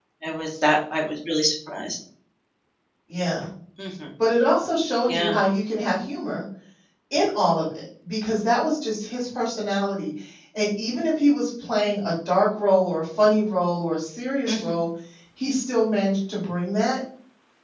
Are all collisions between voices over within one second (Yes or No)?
Yes